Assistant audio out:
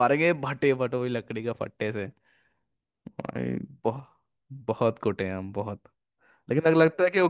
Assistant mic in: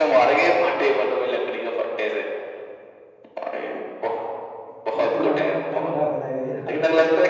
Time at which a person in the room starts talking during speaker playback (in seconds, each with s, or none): 4.9 s